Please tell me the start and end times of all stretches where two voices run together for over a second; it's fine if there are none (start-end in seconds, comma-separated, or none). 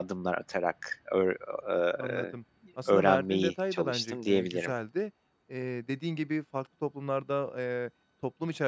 2.9-4.7